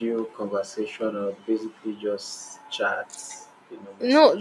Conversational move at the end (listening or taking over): taking over